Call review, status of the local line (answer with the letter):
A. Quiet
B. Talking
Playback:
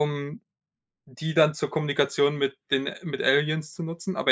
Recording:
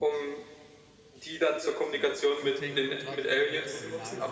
B